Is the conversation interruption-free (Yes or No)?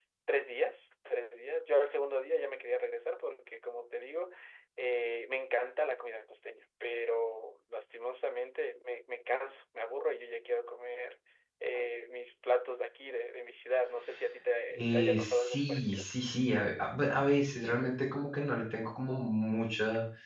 No